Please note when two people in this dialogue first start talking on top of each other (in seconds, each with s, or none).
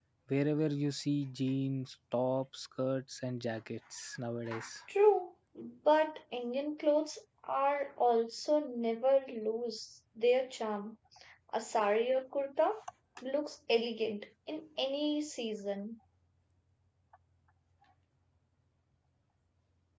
none